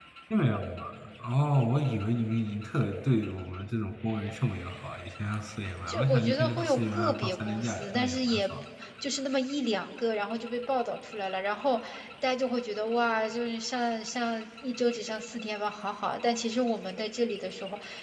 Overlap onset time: 5.9 s

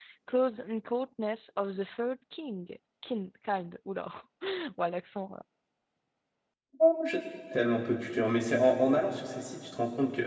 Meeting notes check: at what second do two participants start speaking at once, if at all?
none

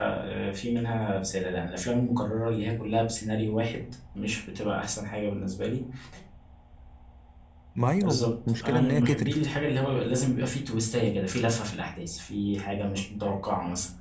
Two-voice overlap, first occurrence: 8.0 s

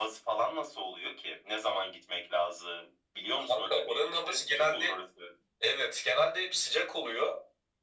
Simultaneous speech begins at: 3.4 s

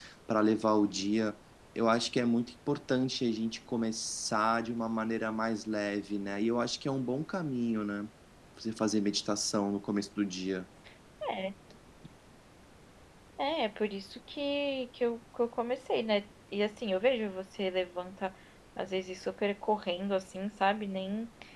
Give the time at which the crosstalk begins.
none

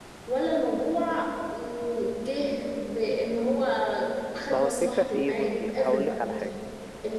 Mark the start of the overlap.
4.5 s

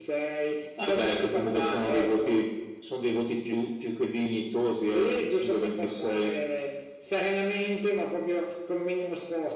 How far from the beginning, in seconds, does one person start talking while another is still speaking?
0.9 s

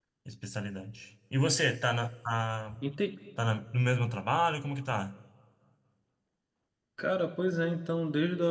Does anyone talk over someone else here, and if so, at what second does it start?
none

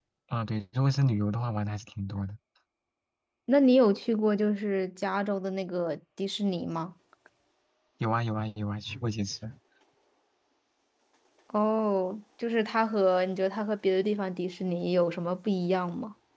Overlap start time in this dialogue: none

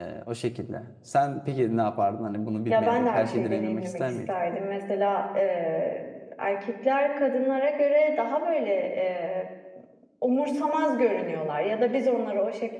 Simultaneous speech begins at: 2.7 s

